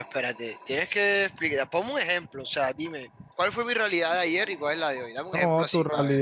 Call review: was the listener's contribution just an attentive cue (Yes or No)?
No